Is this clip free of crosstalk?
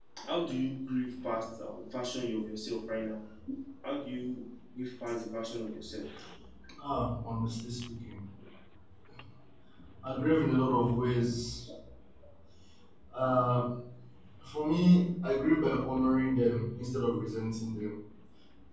Yes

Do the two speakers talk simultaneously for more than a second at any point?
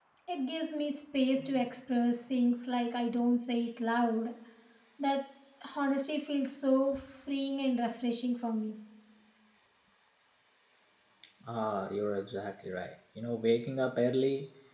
No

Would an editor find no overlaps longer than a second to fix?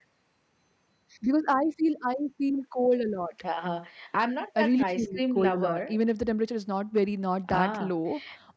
No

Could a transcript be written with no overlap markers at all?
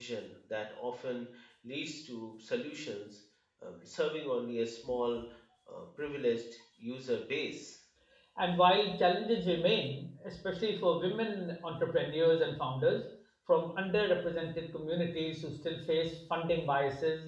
Yes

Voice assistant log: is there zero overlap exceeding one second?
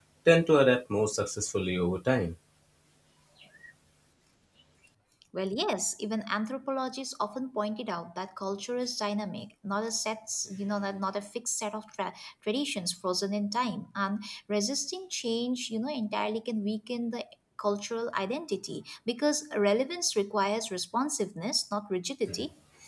Yes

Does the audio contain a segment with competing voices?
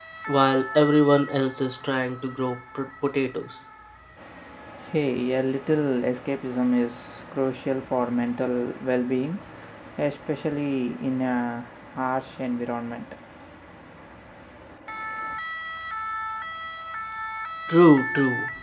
No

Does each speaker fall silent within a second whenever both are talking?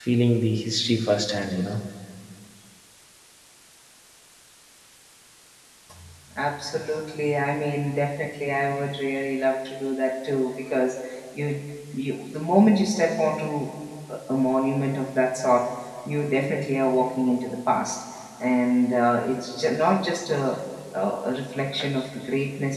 Yes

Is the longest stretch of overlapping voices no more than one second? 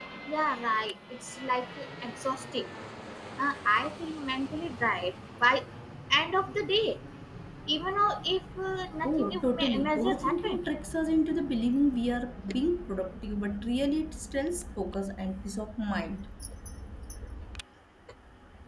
No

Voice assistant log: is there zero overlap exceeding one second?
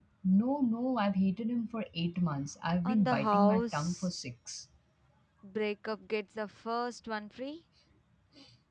No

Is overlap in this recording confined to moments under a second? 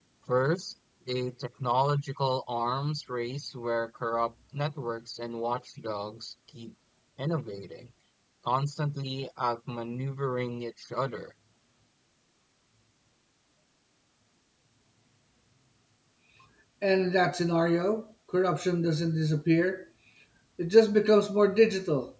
Yes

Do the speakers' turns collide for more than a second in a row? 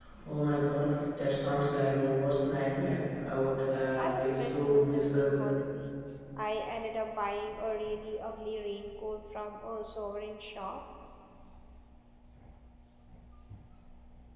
Yes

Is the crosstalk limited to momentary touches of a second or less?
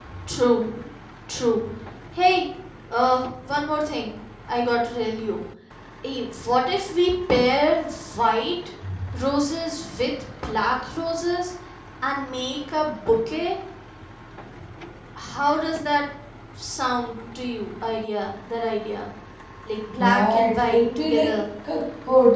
No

